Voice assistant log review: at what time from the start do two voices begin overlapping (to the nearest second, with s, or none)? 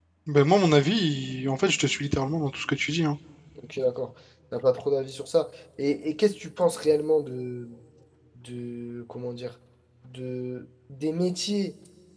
none